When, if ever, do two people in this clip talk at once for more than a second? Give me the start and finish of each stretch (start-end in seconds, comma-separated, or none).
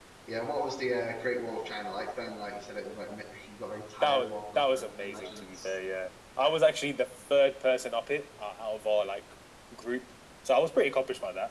4.0-5.7